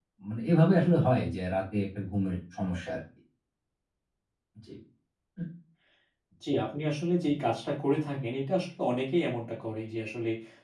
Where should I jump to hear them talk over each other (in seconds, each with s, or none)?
none